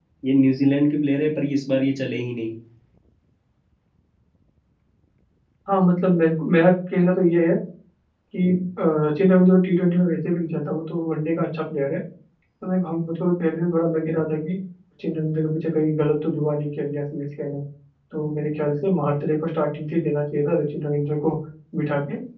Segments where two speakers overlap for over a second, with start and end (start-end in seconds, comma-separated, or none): none